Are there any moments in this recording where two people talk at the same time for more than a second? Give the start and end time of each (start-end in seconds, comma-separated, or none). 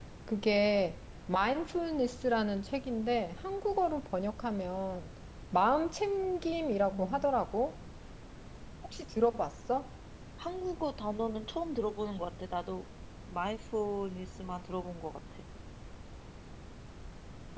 none